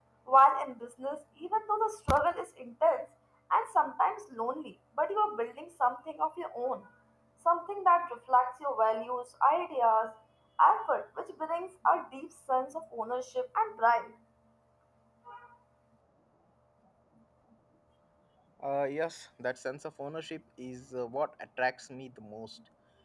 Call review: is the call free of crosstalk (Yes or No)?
Yes